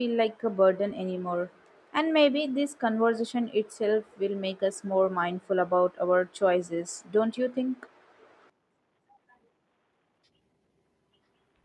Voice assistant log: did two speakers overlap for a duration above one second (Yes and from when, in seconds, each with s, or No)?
No